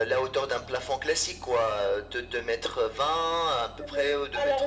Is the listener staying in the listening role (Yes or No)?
No